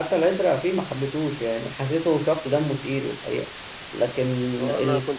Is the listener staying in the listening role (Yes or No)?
No